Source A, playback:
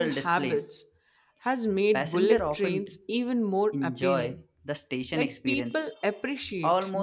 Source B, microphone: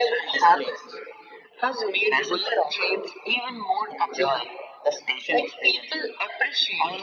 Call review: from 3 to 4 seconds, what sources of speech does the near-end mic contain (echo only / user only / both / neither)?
echo only